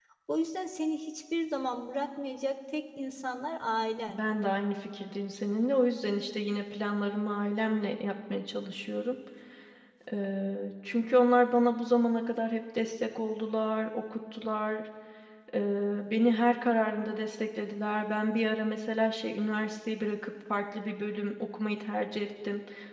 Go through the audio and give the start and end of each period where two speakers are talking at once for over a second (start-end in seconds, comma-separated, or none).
none